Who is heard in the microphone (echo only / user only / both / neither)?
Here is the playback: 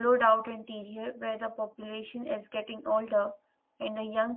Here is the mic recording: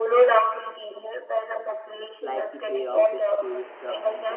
both